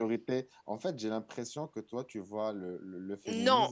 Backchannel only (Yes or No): No